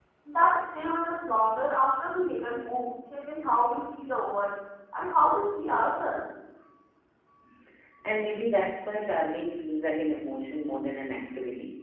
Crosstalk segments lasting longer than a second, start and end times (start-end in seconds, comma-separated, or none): none